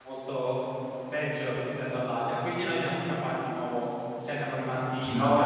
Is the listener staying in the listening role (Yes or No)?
No